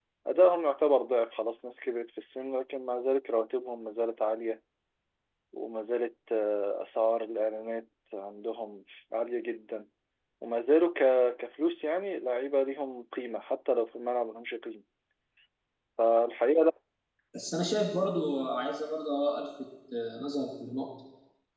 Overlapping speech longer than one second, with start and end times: none

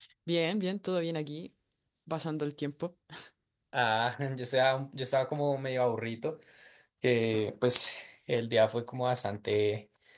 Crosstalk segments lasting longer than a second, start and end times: none

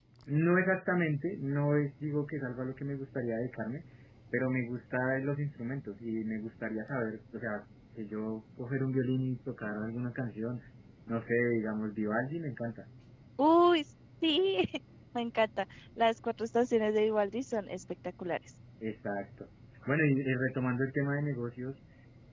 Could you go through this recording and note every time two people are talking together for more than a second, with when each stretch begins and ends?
none

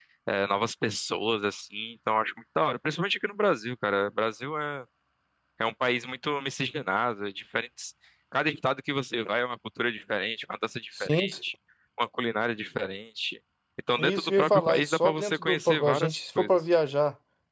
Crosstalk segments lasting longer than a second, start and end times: 14.0-16.6

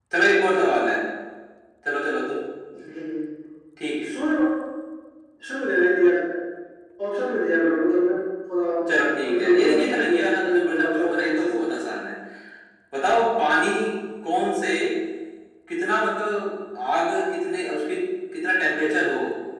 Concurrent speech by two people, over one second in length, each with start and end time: 9.2-11.6

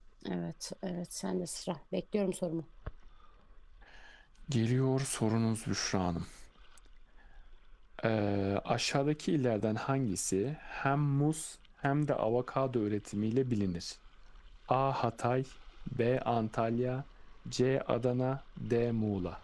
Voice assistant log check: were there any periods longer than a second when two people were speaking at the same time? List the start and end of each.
none

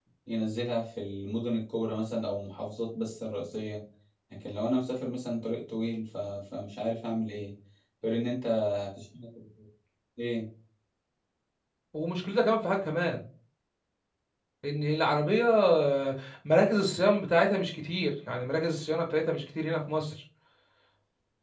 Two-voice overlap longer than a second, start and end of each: none

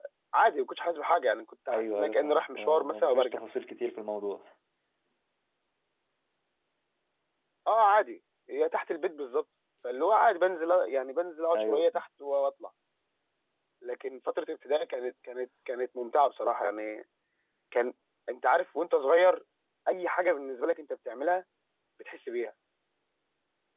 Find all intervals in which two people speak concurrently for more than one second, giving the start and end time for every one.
1.7-3.4

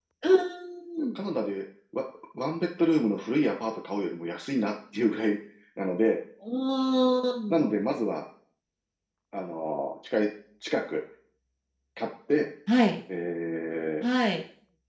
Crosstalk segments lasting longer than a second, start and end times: none

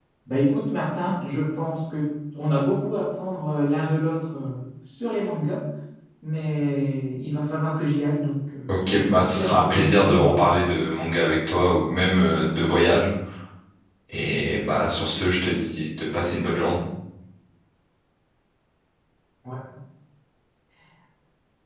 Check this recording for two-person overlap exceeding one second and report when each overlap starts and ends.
8.7-10.4

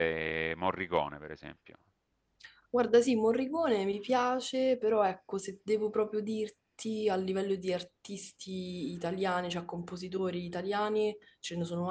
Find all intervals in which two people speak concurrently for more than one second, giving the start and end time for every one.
none

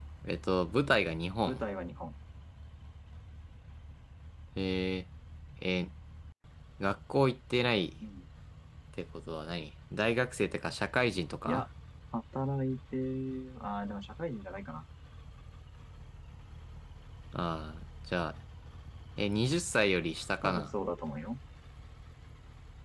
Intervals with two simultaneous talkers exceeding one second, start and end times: none

